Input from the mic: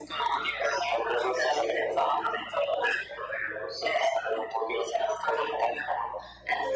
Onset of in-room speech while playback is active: none

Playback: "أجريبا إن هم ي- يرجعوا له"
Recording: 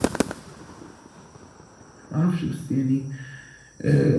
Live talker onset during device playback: 2 s

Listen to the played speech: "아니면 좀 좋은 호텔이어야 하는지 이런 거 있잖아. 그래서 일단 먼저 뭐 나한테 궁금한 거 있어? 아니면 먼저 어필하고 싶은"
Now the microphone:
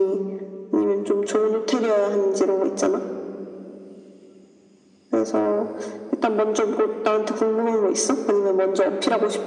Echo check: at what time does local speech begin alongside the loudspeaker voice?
none

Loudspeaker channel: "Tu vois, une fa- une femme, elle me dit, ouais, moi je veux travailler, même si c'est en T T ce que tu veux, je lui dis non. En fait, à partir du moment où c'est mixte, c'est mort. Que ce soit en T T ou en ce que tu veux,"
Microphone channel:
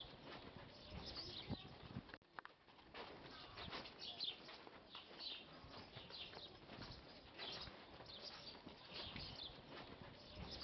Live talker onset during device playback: none

